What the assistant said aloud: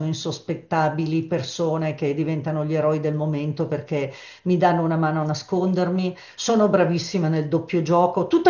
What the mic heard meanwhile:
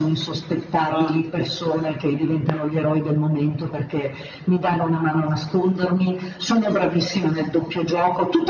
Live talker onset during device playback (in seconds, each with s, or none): 0.8 s